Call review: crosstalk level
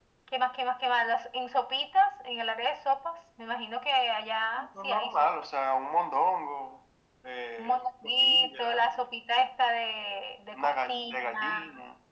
present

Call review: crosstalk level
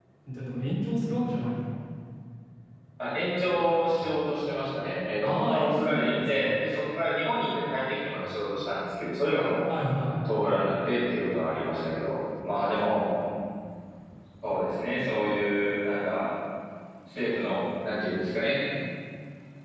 present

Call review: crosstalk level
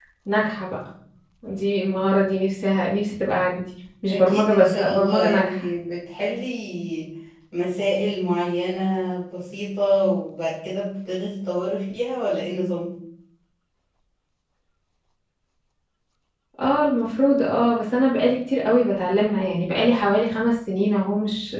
present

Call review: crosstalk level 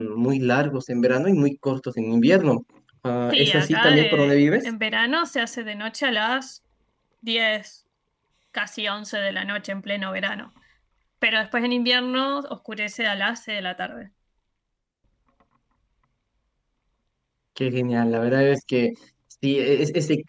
present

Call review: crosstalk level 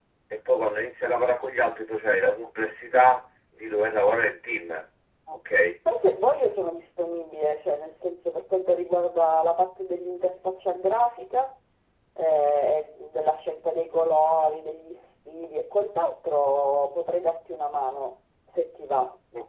none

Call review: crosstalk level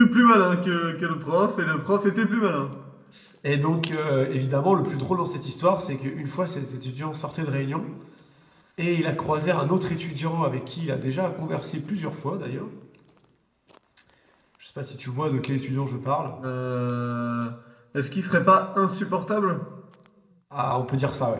none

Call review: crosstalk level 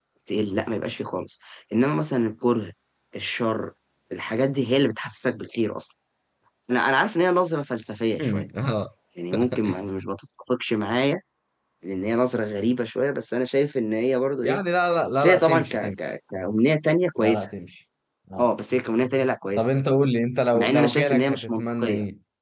present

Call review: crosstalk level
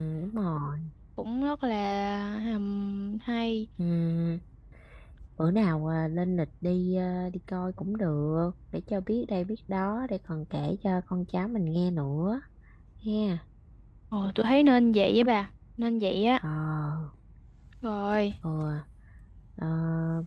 none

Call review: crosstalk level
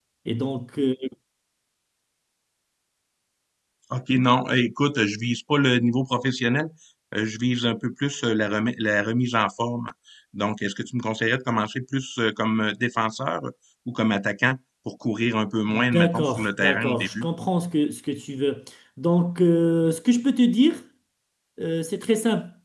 present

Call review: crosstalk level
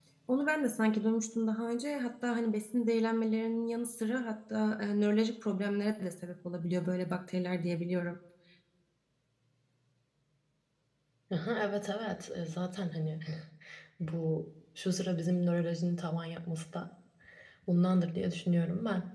none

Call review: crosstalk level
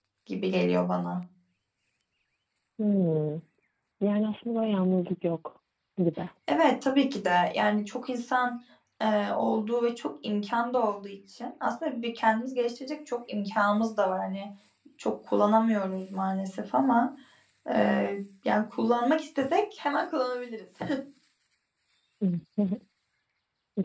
none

